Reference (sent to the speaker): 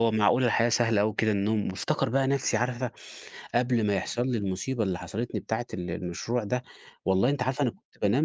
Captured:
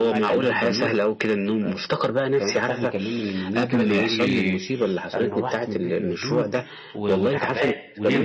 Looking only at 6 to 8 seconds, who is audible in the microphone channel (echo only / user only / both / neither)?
both